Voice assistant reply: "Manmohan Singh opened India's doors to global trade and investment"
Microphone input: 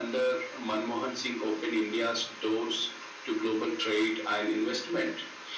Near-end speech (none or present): none